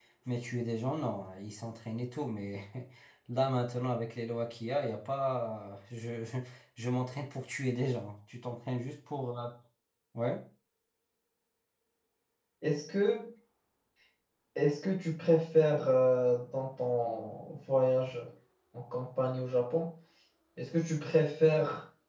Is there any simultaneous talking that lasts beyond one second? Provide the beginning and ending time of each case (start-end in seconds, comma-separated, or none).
none